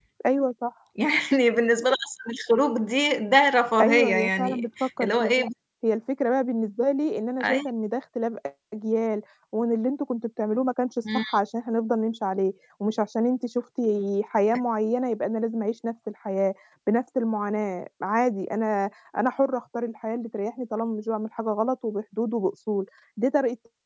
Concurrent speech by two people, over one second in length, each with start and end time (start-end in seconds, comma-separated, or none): 3.8-5.4